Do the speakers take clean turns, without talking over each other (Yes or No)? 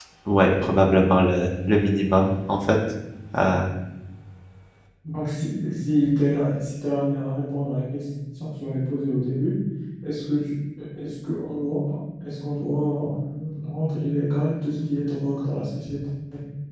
Yes